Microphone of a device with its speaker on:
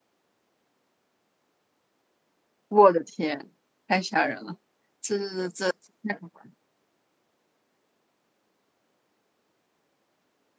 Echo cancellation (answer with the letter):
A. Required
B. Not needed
B